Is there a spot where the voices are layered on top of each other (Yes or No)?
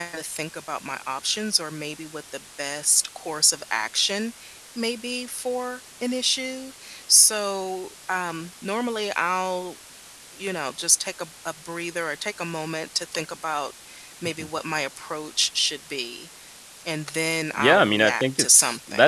Yes